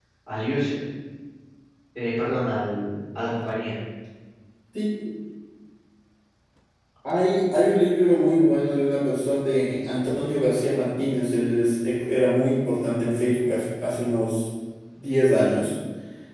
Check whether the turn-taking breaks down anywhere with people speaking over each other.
No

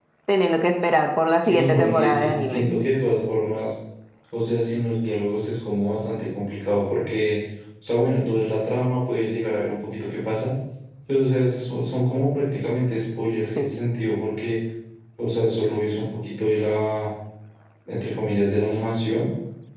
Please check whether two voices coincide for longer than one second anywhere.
Yes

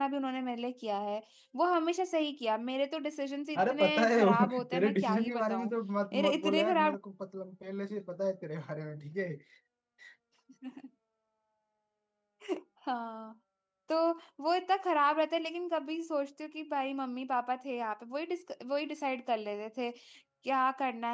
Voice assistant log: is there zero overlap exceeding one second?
No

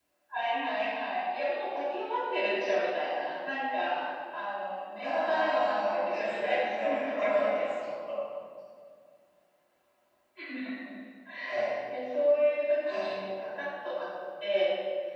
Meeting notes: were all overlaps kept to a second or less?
No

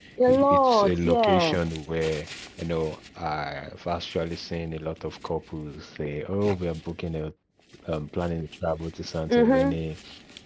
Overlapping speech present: Yes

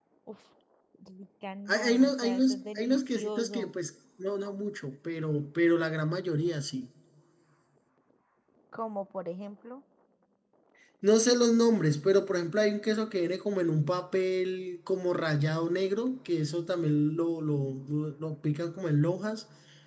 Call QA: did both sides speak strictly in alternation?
No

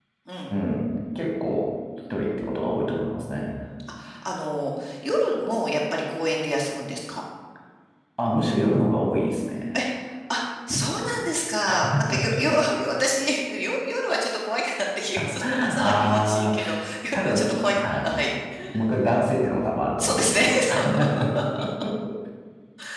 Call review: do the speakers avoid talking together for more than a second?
No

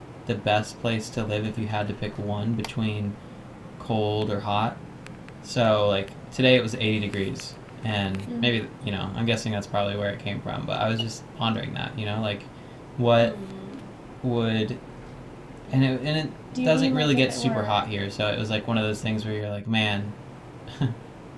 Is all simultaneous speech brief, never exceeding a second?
No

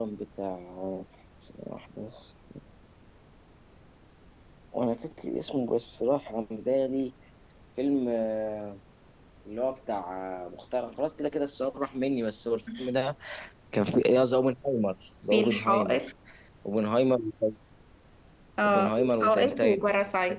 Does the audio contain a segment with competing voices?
Yes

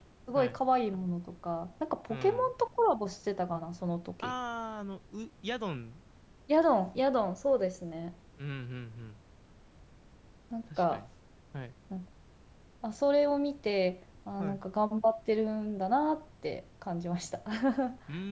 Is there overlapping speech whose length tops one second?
No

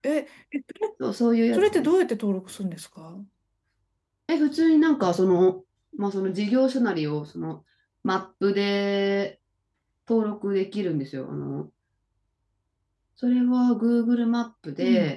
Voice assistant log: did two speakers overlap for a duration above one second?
No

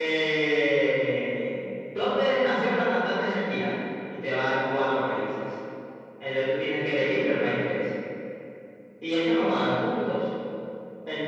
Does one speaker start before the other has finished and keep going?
No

